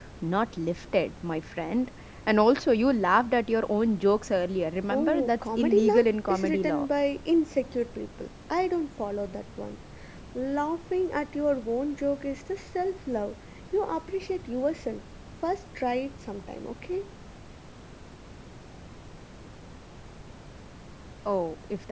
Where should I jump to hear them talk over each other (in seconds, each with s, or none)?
4.9 s